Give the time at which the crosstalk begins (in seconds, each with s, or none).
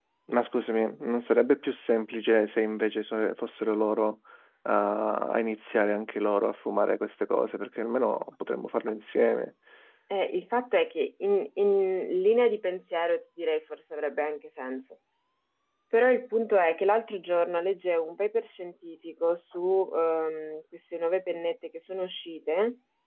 none